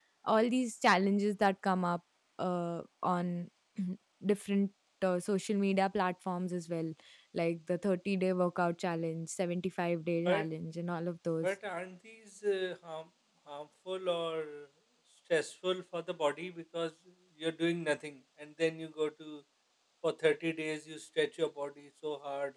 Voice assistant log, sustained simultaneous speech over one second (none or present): none